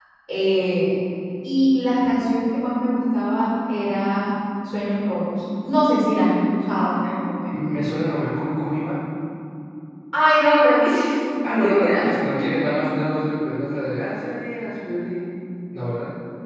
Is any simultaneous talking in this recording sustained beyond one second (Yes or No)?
Yes